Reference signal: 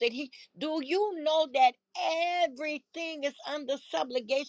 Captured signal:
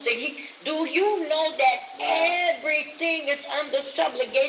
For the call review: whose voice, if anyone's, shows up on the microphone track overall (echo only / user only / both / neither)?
both